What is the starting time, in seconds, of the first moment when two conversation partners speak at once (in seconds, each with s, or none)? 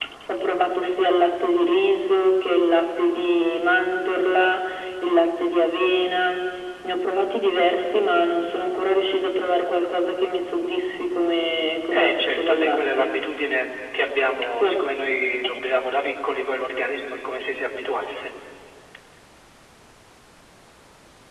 11.9 s